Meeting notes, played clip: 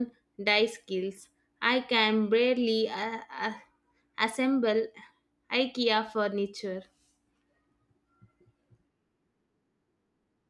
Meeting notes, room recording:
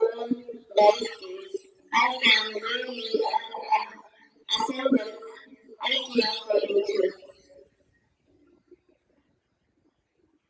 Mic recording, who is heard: echo only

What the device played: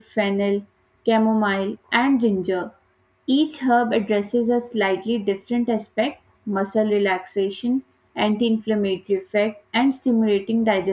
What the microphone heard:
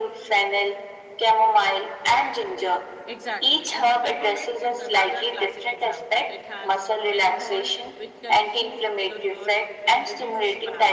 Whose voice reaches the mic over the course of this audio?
both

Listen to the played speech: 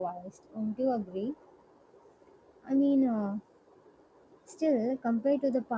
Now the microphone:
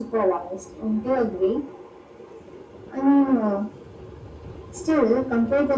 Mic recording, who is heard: echo only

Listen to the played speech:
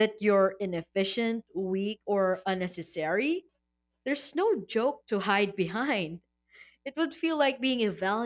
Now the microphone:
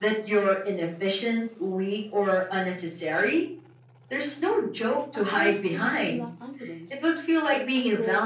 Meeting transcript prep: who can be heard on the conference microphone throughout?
both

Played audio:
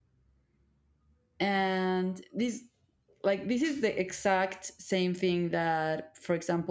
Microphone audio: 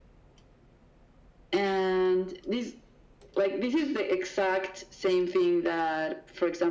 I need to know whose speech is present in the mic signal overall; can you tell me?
echo only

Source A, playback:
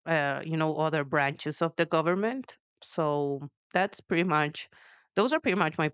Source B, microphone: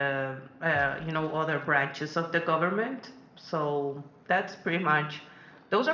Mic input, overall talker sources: echo only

